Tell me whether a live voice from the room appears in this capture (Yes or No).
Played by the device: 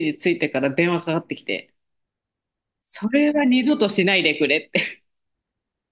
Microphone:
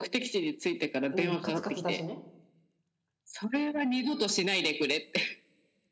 Yes